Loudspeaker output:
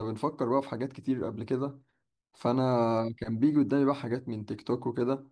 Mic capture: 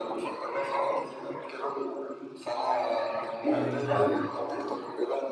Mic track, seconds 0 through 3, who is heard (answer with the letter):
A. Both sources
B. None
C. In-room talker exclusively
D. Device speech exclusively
D